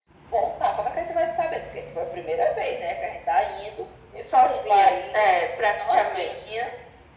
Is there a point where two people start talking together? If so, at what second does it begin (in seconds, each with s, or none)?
4.4 s